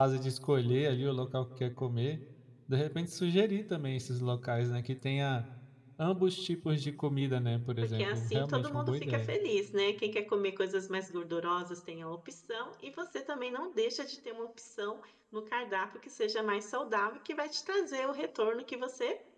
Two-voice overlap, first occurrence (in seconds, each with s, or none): 7.8 s